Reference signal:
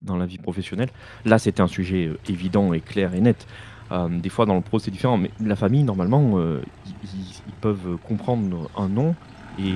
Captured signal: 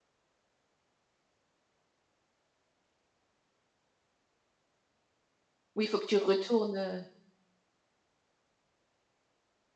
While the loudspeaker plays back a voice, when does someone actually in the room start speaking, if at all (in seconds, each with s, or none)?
5.7 s